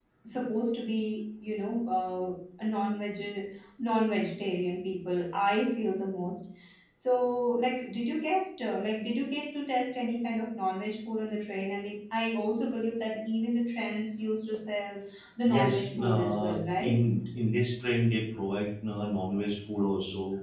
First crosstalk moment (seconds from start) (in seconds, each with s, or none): 15.4 s